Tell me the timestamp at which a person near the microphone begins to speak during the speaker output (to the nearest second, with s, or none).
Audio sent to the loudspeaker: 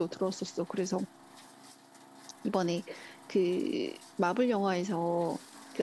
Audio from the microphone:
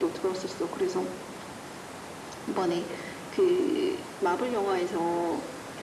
none